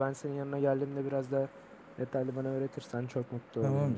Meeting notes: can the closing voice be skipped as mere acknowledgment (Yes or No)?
No